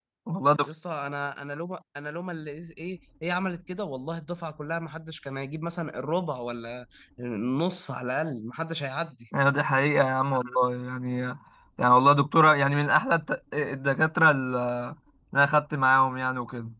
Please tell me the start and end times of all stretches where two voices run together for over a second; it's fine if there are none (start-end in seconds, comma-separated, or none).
none